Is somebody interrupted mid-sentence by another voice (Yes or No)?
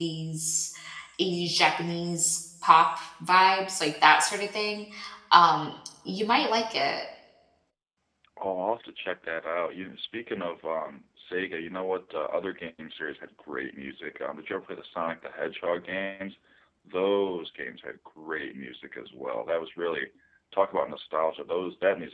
No